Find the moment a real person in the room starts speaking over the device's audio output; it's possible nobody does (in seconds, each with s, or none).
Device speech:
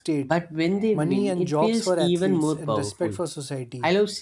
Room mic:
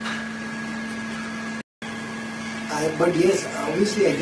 2.7 s